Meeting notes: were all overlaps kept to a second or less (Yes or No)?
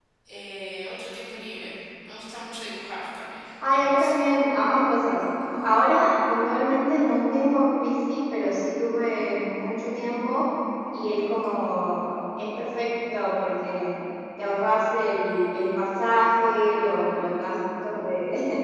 Yes